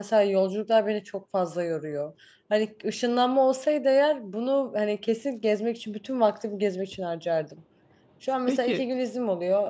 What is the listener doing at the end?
listening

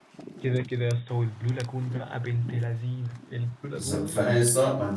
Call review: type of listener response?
taking over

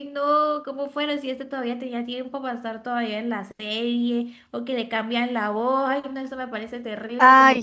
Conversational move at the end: taking over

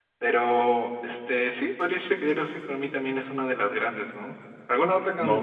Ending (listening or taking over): listening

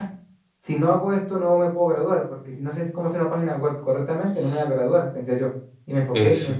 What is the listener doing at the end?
listening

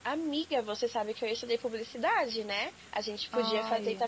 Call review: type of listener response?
listening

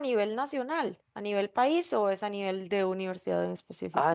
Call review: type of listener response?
taking over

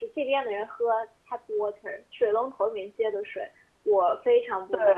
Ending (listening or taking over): listening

